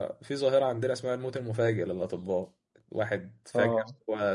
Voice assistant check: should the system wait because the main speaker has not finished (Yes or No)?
Yes